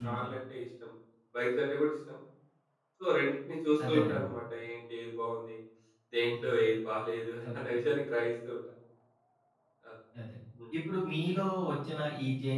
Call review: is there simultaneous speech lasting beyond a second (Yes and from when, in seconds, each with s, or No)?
No